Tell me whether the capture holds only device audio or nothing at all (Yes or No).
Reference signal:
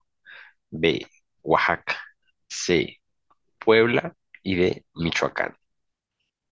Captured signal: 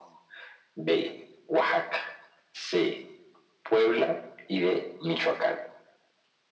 Yes